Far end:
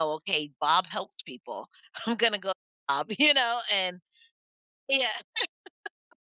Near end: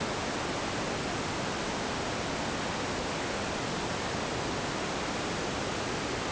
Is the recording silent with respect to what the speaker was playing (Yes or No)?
Yes